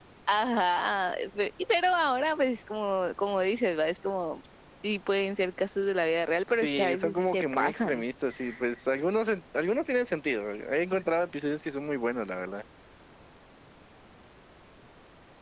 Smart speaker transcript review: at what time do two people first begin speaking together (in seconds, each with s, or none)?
6.6 s